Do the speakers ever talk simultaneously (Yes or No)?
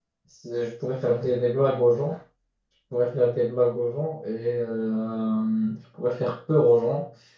No